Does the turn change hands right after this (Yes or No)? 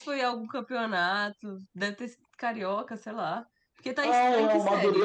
Yes